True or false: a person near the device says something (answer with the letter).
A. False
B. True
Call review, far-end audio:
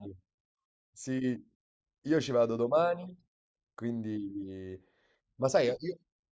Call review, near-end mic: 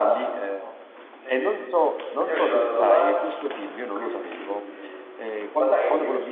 B